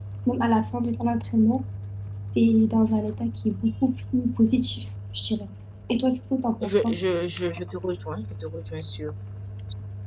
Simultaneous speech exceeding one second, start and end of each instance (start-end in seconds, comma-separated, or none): none